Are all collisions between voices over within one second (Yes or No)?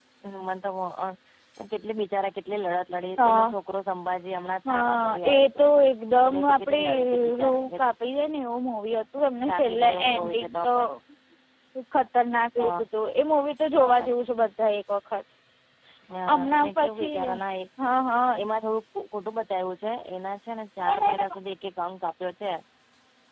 No